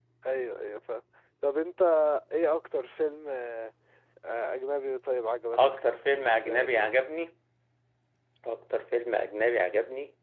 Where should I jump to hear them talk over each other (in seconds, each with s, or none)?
5.5 s